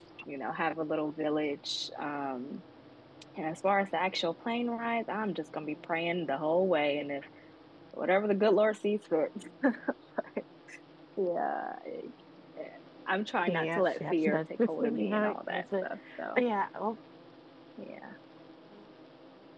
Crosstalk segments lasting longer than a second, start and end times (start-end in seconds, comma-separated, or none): 13.4-15.8